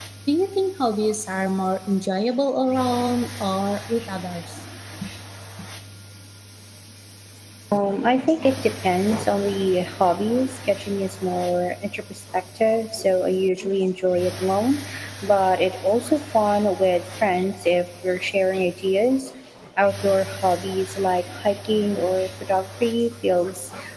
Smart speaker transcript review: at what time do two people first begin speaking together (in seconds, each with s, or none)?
none